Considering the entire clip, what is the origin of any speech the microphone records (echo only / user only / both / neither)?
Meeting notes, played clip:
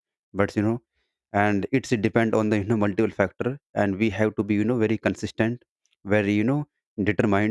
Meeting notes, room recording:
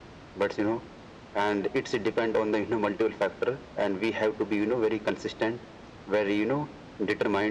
echo only